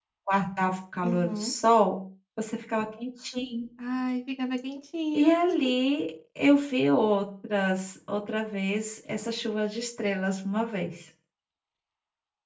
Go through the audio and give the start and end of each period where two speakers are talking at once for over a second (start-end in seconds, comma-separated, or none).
none